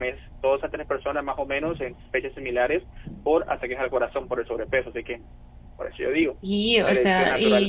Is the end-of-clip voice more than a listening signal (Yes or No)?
Yes